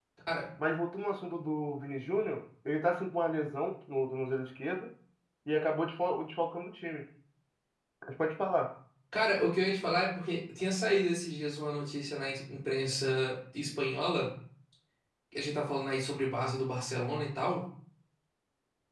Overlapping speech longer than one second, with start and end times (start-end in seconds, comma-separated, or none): none